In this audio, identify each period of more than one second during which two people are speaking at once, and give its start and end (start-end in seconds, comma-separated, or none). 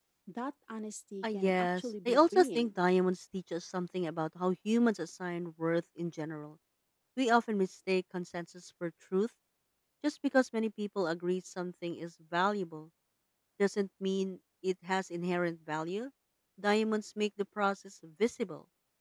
1.2-2.7